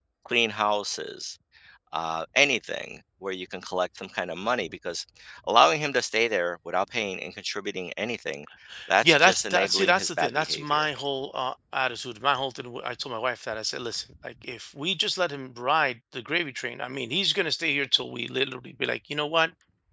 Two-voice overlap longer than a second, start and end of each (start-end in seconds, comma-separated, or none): 9.0-10.9